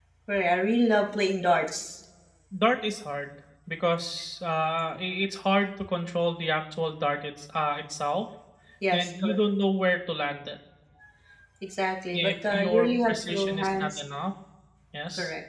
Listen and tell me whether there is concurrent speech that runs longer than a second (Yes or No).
Yes